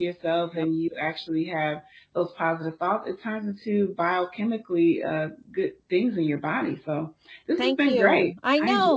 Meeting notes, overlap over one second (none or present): present